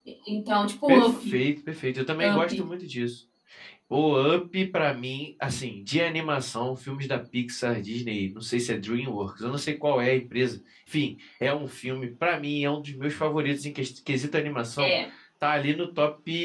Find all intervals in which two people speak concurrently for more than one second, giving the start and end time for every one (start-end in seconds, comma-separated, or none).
none